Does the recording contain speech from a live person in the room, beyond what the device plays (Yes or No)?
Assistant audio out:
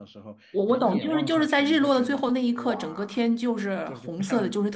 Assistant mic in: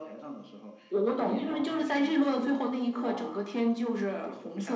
No